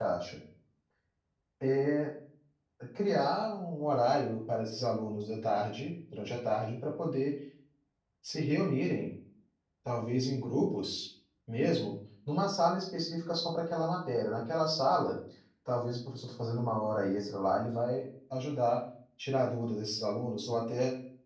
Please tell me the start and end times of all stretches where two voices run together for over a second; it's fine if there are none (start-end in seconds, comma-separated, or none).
none